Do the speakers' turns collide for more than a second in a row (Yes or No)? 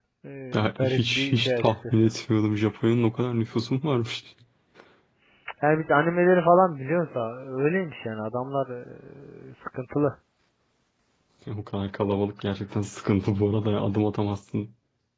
Yes